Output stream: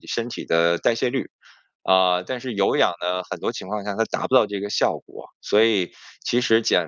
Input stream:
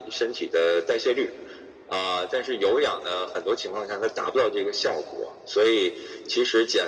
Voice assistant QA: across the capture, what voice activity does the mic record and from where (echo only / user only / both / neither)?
echo only